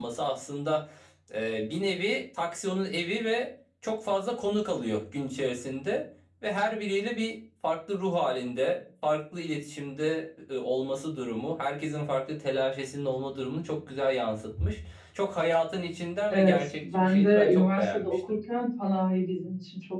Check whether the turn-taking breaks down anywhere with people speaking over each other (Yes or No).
Yes